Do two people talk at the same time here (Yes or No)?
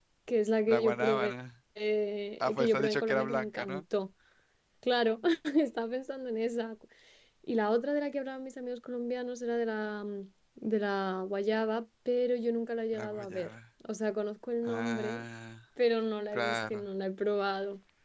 Yes